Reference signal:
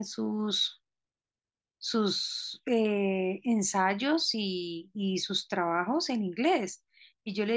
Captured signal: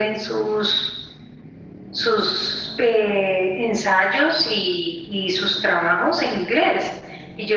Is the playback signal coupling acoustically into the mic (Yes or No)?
Yes